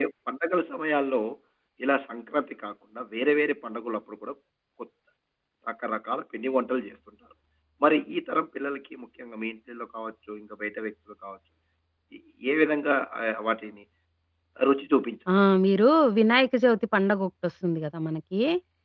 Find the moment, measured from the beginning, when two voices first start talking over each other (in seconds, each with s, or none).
none